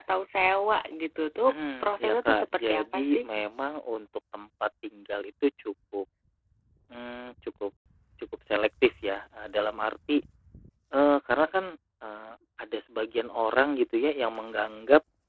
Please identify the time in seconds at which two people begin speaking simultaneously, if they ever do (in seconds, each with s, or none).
1.4 s